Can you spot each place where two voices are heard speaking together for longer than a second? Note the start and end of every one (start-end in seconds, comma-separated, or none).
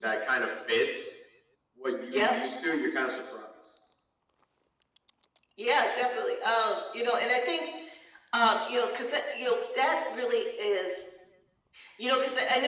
none